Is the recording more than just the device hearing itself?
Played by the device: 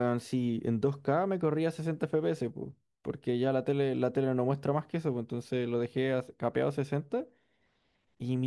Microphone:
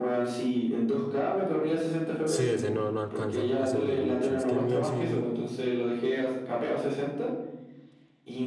Yes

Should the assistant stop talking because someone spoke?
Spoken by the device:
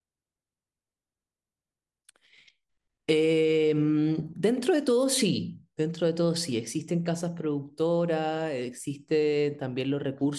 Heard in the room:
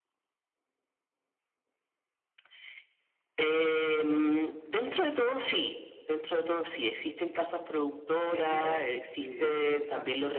Yes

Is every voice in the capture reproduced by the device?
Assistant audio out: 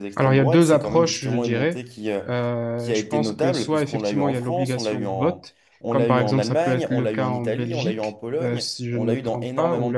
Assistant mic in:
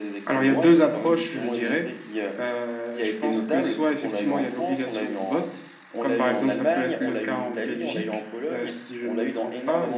Yes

